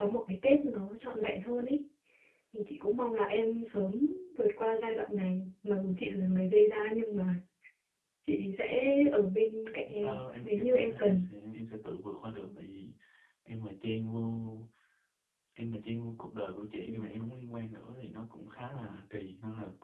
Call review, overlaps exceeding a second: present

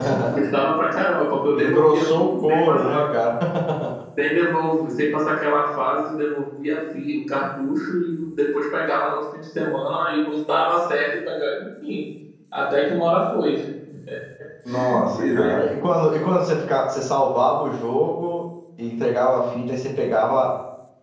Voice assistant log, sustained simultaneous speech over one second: present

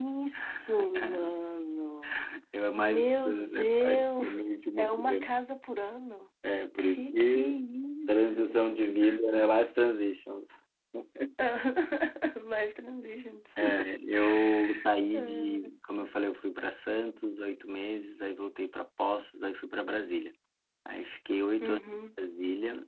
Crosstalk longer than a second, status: present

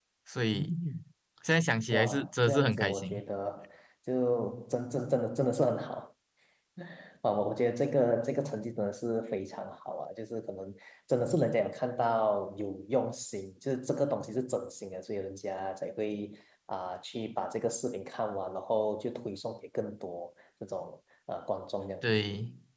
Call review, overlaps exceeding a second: present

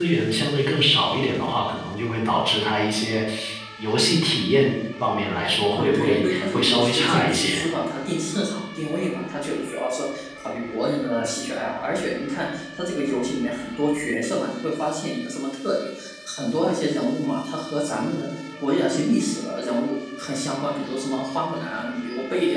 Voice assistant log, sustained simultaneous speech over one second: present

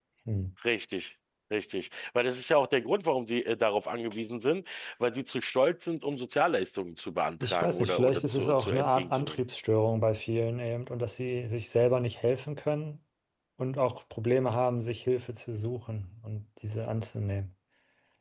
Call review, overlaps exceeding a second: present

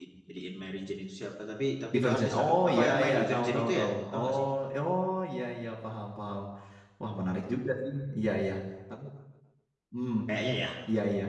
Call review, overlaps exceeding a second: present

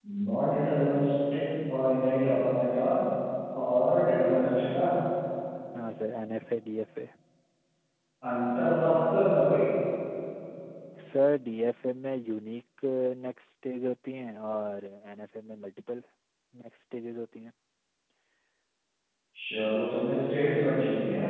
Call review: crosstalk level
none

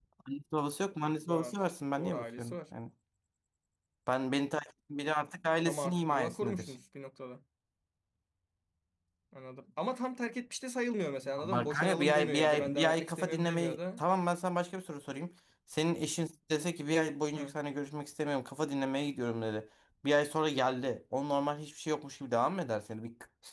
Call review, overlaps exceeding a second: present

